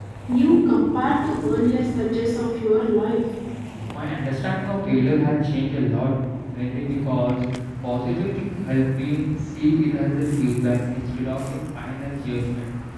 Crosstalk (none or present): none